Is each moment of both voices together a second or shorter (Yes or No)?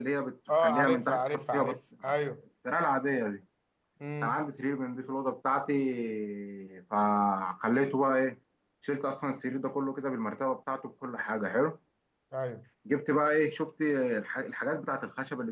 No